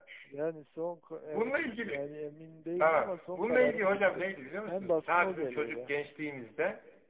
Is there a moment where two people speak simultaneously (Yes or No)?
Yes